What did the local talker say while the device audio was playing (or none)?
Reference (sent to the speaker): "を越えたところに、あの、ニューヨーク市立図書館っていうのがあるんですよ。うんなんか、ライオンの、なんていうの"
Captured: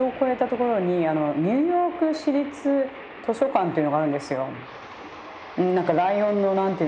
none